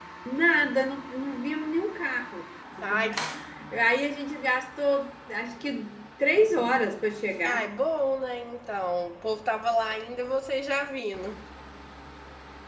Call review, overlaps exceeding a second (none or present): none